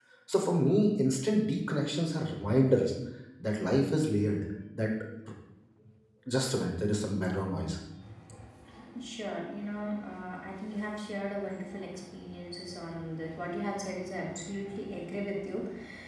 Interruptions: none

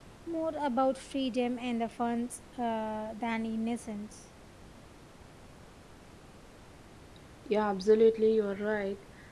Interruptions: none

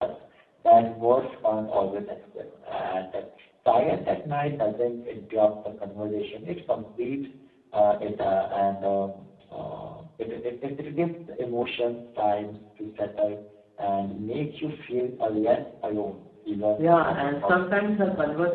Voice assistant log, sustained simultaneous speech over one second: present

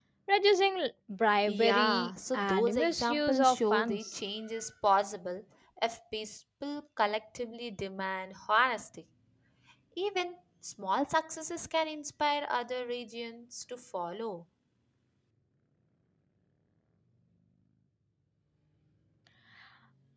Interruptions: present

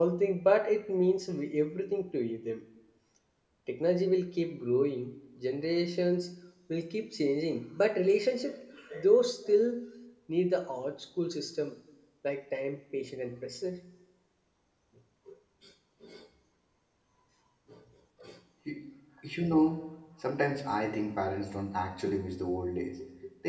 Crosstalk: none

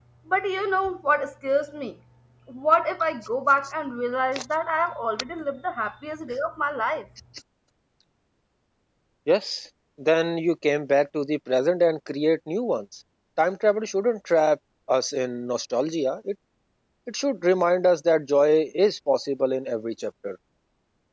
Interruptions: none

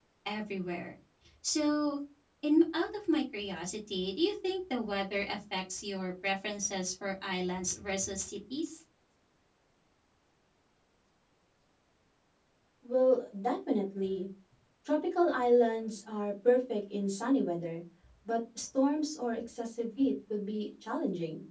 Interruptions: none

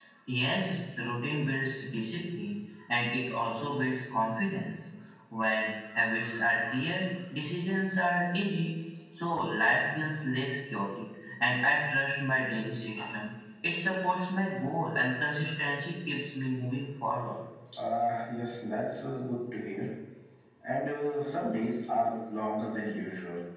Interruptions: none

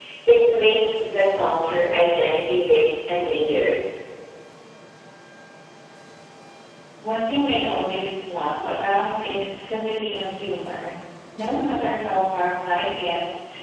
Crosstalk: none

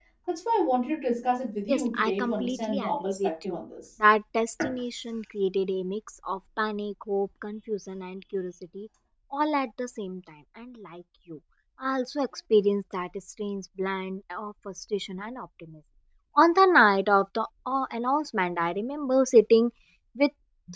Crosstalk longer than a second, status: present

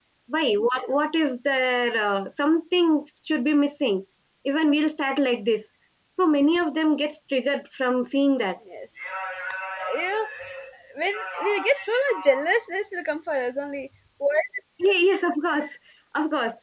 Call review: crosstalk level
none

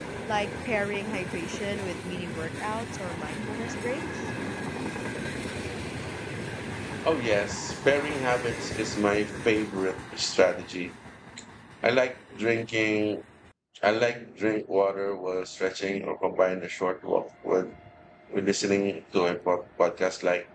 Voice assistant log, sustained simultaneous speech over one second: none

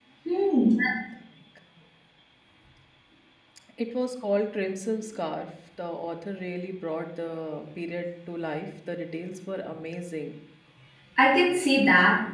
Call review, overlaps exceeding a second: none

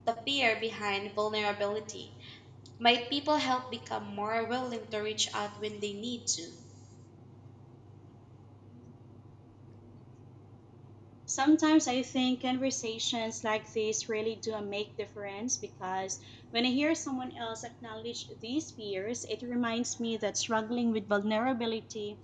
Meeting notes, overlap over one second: none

